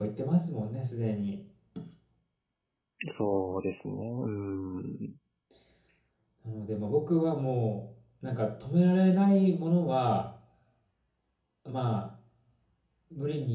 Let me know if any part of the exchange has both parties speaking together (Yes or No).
No